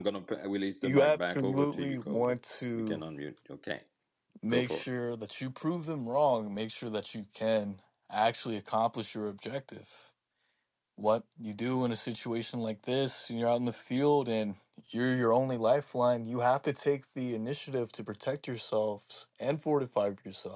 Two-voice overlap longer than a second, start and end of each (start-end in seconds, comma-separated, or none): 0.8-2.3